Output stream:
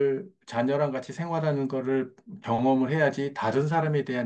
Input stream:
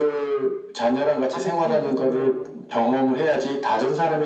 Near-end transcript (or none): 아기 키우고